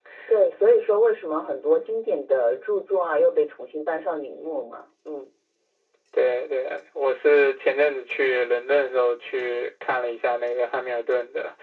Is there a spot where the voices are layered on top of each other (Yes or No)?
No